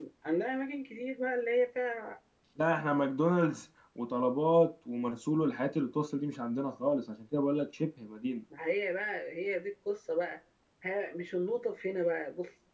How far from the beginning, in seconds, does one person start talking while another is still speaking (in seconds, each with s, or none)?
none